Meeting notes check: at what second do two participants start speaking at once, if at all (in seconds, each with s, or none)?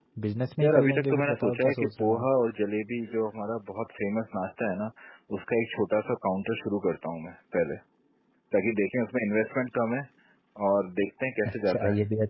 0.6 s